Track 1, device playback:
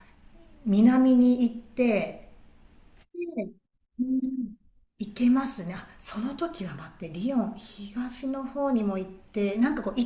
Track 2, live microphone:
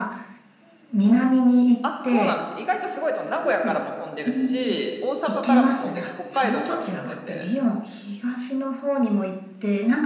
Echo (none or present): present